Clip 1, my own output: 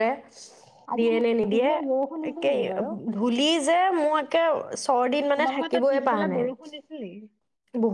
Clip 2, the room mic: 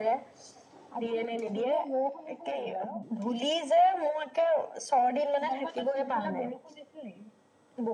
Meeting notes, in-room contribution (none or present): none